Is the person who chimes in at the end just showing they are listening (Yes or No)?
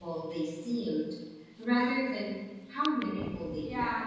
No